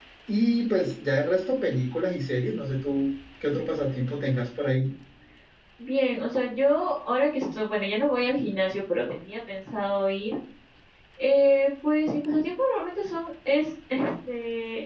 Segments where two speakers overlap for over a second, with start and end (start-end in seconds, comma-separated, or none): none